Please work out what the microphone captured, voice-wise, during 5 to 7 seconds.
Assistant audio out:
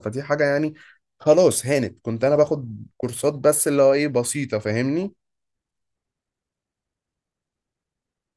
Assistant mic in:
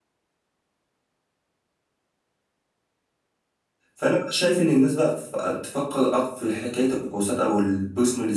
user only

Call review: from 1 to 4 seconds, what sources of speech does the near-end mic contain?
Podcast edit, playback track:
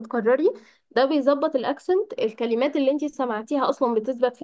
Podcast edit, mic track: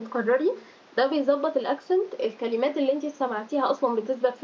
echo only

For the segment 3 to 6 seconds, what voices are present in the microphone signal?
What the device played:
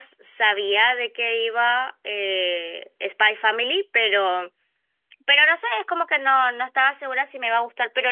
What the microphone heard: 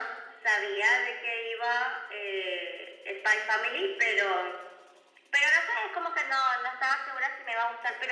echo only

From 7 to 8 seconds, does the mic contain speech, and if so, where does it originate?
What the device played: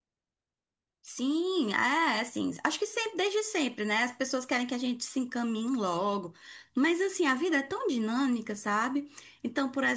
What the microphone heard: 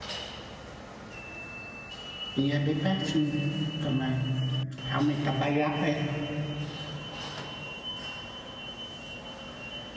neither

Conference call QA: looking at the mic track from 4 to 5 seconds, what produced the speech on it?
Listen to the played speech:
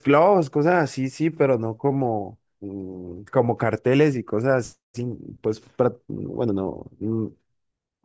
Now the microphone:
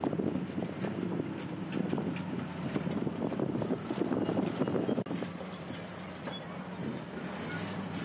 neither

